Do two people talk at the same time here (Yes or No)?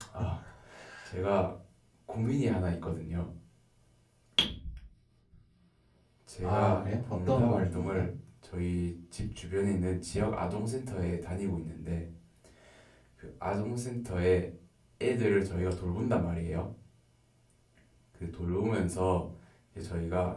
Yes